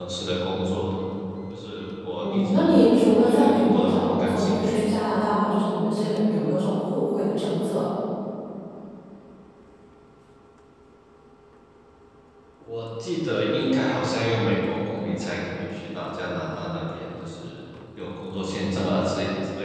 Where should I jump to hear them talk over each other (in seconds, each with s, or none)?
2.2 s